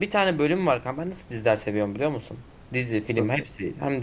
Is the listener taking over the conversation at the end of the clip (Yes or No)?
No